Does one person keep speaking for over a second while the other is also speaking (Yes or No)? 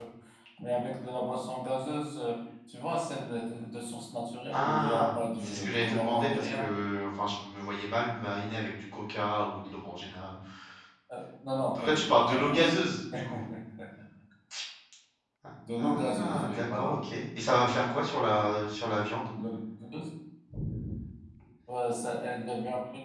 Yes